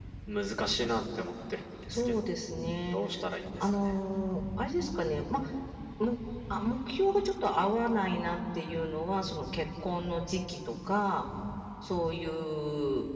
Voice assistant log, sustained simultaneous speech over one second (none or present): none